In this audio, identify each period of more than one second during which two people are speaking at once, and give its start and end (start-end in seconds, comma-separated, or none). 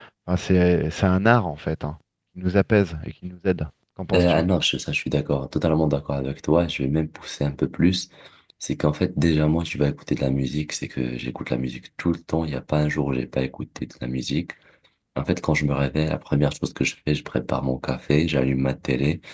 none